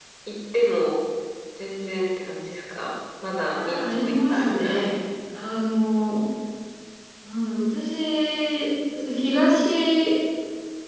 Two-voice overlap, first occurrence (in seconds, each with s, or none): 3.6 s